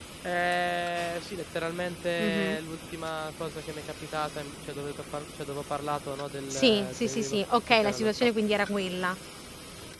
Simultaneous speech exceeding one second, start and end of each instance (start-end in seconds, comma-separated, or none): 6.5-8.1